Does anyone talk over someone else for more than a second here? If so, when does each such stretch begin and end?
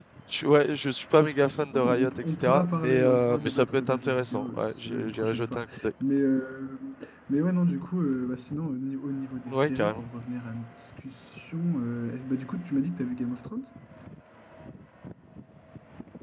1.7-5.6

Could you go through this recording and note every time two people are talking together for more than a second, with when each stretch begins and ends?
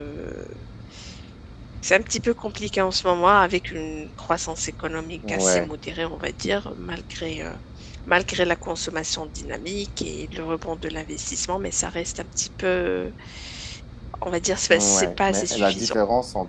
14.7-16.0

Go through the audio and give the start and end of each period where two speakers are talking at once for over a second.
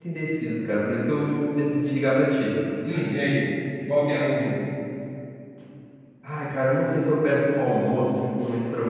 none

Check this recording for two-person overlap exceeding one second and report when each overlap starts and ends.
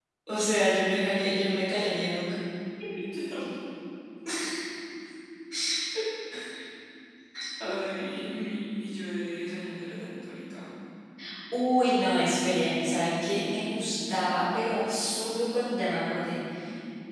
none

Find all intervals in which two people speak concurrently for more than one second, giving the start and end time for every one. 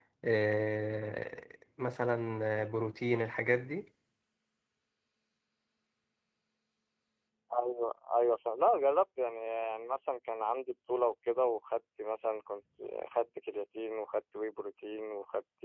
none

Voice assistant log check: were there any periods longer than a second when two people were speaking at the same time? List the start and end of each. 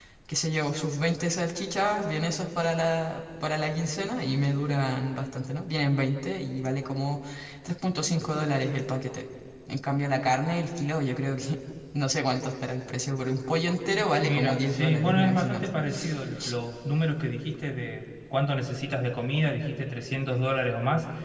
14.1-15.7

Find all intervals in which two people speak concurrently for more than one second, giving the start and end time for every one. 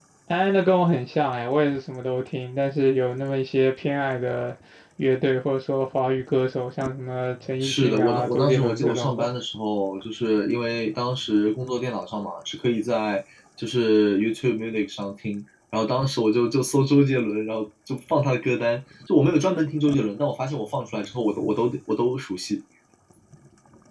7.6-9.3

